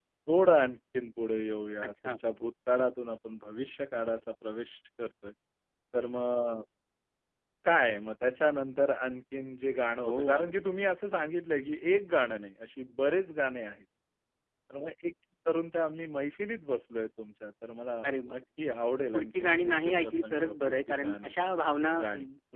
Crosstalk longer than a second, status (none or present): present